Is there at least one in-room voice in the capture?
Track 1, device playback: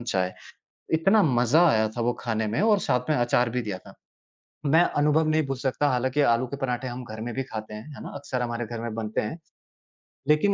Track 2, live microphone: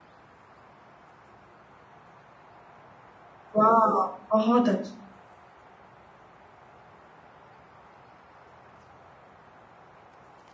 Yes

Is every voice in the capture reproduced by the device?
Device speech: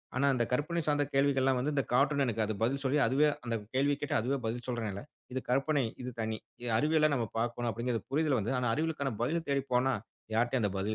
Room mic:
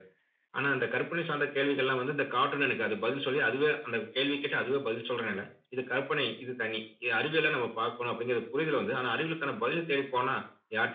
Yes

